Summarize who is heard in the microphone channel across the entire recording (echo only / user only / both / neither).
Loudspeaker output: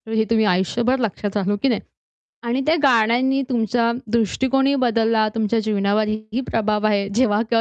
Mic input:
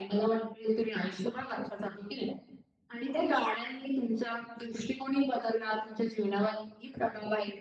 echo only